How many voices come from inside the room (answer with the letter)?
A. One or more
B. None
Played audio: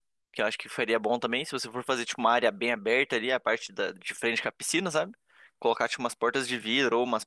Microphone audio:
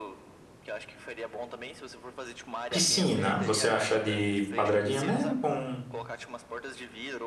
A